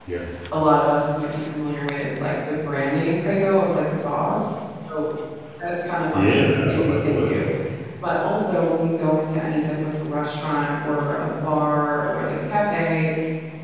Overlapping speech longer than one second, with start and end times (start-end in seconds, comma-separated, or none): 6.1-7.4